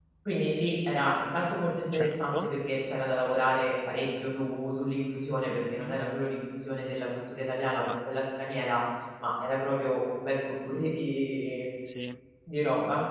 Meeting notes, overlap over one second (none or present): none